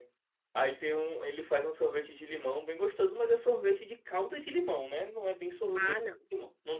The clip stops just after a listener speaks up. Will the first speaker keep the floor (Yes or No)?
Yes